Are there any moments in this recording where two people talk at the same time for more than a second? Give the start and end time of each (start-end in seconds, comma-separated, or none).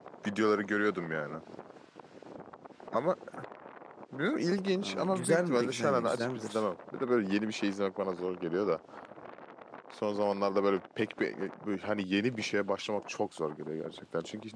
4.8-6.6